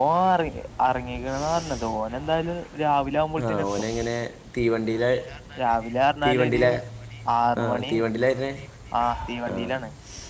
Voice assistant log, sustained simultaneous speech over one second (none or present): none